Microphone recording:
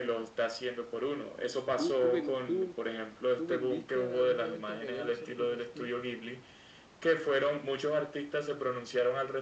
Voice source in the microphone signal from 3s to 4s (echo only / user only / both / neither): echo only